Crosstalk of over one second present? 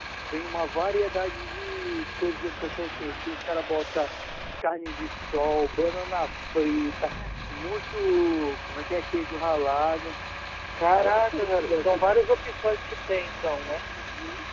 Yes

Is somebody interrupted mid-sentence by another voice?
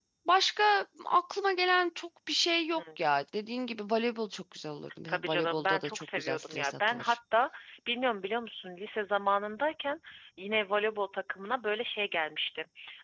Yes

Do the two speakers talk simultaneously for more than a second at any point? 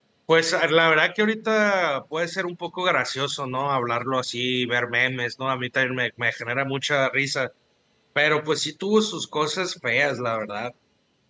No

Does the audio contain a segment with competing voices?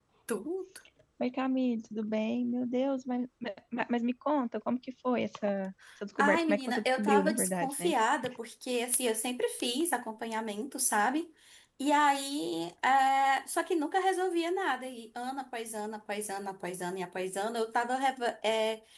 Yes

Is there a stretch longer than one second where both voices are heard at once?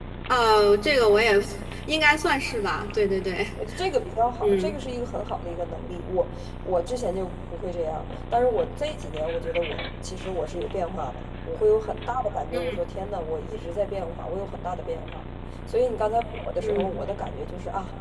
No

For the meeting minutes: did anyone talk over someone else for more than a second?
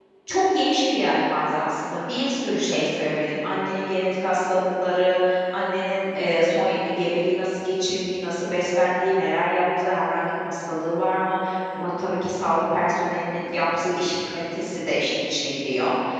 No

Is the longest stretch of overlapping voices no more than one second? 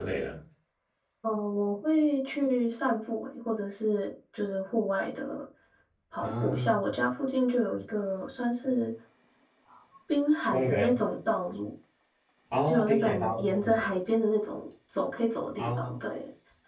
No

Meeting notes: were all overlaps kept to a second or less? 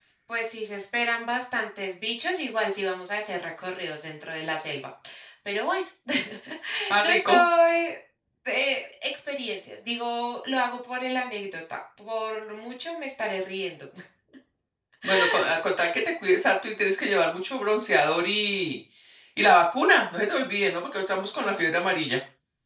Yes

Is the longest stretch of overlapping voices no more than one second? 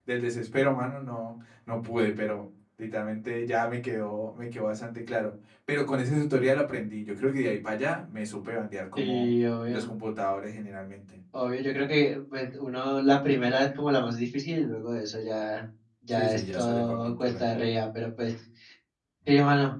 No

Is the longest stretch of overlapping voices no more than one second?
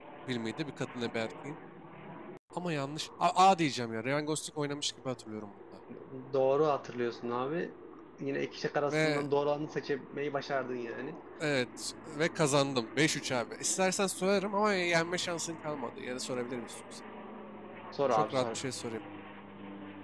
Yes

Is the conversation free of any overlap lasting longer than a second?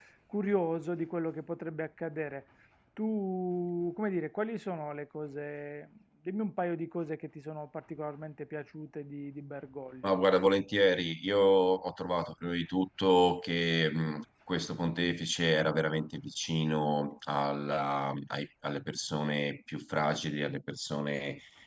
Yes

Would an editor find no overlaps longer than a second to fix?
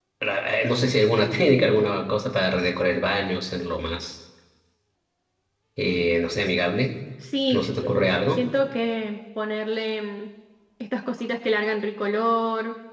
Yes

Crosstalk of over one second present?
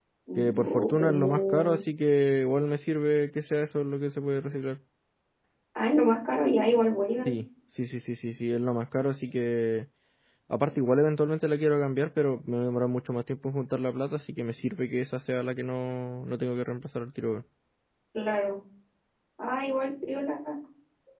Yes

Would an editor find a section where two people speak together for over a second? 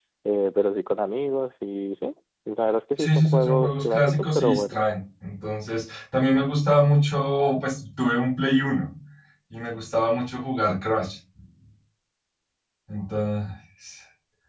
Yes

